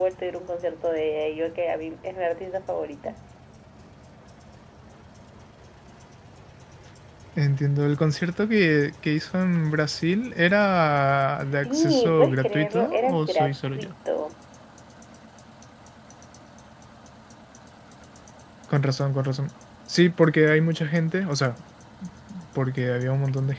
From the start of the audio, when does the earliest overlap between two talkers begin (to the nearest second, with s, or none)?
11 s